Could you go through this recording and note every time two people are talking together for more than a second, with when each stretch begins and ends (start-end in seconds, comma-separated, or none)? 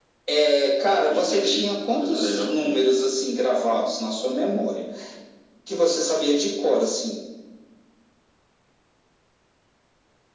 1.1-2.8